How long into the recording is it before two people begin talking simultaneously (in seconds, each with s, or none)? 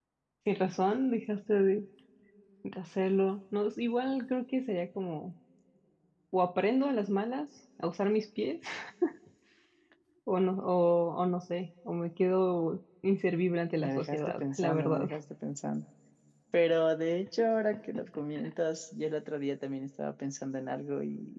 13.8 s